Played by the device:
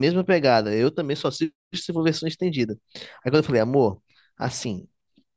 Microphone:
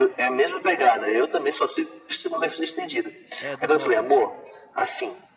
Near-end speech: present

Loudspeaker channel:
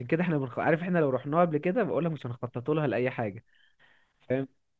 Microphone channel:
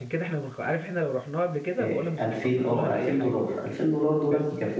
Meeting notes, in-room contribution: present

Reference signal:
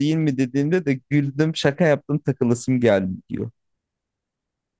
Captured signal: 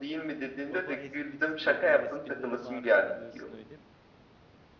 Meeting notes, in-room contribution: present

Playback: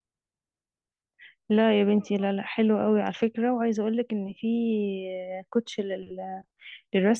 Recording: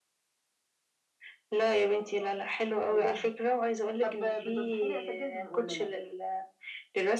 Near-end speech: present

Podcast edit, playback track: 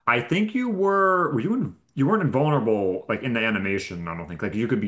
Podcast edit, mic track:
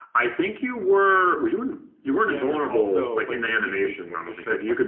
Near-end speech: present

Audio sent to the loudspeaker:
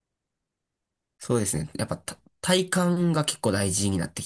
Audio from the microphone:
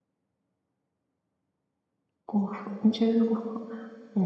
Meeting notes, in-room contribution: present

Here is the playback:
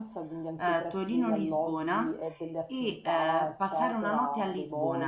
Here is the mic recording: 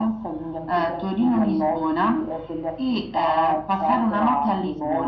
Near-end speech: none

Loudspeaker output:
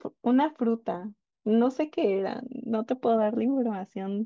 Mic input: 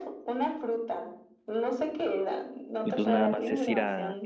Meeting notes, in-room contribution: present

